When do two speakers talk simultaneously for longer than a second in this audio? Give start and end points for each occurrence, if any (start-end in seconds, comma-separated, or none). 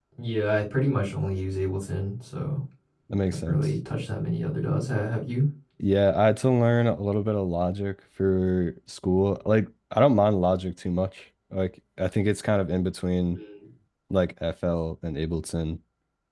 none